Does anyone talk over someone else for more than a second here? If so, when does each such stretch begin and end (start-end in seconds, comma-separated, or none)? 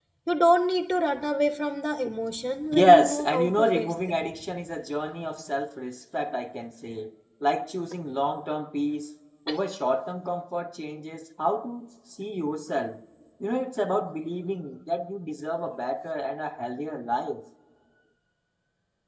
2.7-4.2